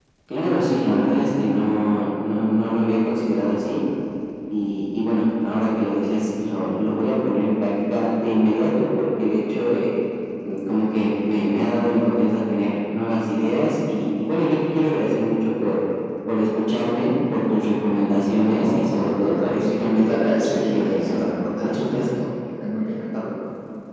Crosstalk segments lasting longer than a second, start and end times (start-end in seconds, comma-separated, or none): 18.4-22.2